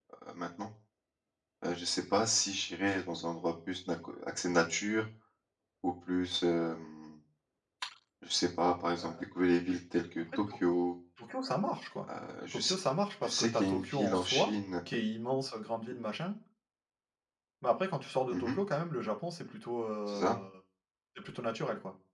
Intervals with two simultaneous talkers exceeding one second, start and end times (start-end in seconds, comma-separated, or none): 13.2-14.5